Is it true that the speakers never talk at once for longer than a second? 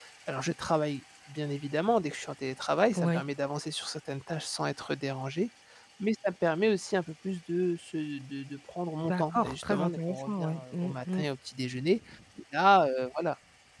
No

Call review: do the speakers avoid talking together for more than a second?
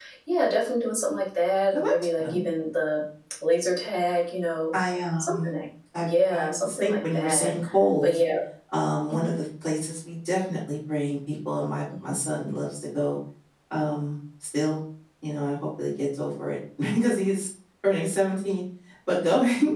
No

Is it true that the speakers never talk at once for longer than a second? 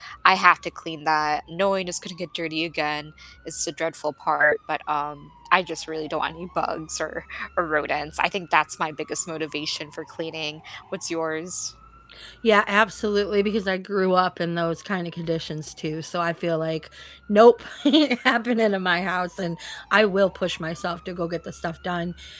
Yes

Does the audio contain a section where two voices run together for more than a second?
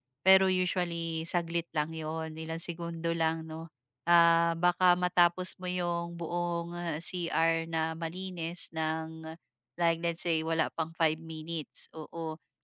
No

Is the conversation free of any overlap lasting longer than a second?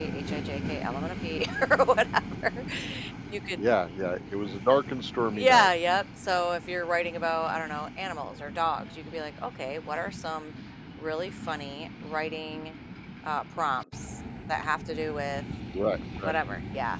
Yes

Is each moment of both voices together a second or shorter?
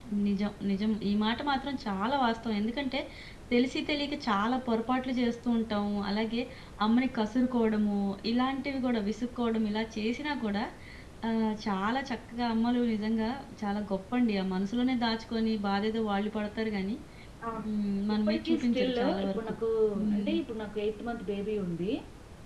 No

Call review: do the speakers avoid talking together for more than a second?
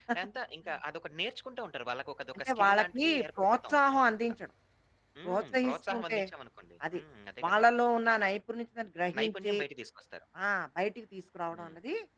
No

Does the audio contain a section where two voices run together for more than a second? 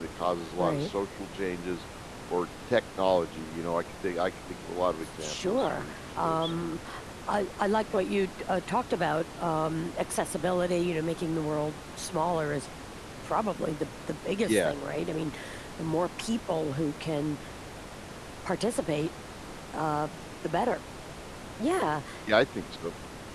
Yes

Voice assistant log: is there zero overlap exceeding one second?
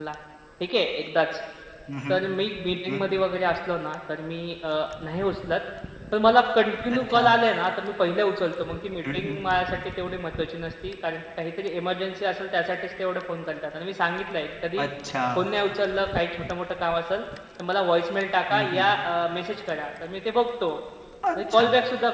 Yes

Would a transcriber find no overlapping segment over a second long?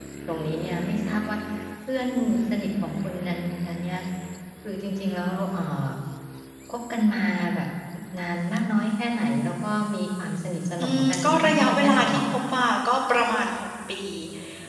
No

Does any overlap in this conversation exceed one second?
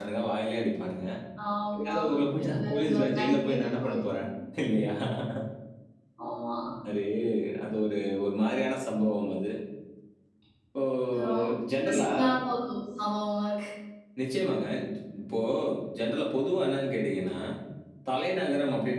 Yes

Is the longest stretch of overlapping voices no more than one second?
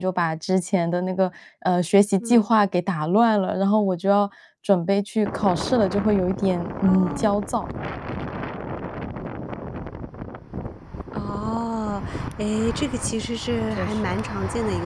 Yes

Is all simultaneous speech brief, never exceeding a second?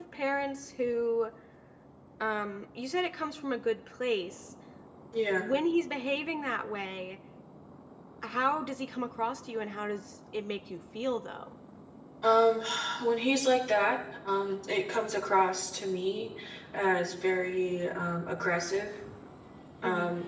Yes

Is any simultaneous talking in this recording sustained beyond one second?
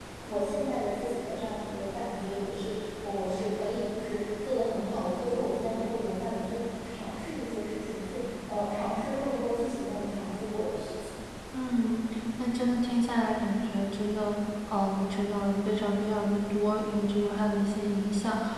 No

